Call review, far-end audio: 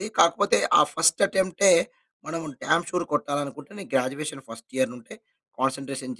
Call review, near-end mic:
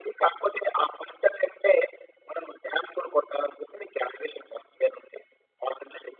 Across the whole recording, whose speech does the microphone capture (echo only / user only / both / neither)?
echo only